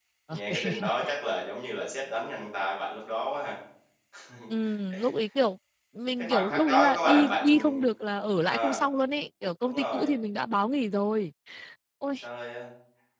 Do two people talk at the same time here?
Yes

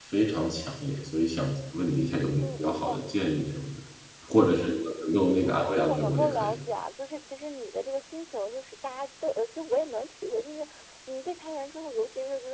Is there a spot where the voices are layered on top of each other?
Yes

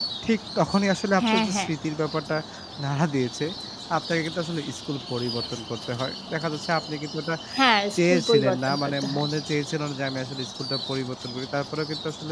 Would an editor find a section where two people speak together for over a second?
Yes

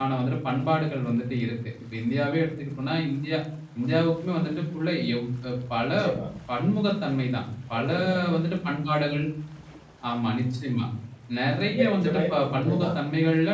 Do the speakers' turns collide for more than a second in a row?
Yes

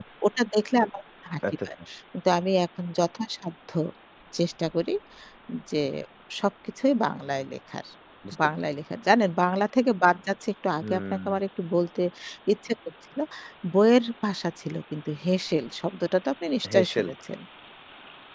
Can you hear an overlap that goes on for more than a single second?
No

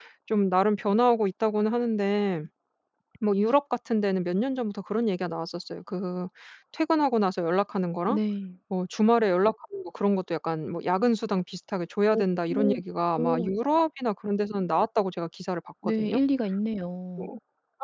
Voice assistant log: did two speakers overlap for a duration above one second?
No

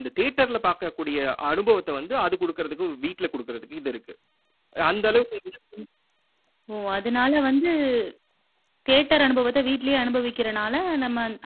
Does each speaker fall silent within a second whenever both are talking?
Yes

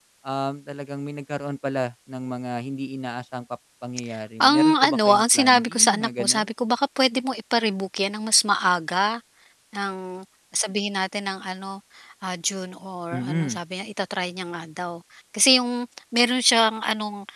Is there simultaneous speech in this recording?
Yes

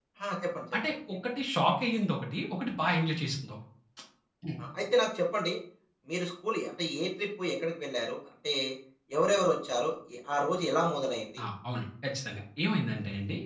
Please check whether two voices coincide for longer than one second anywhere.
No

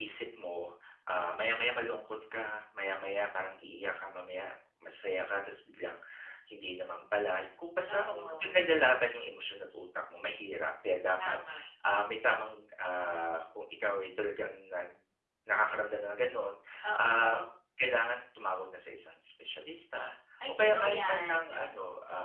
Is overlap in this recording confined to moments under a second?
No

